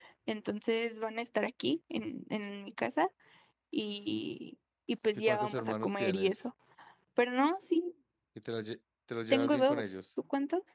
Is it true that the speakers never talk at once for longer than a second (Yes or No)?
No